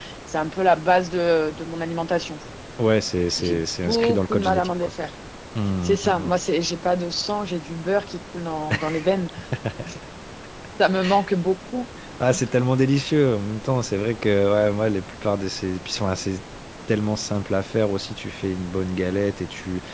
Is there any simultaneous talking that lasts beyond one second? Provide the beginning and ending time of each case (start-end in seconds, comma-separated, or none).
3.4-4.9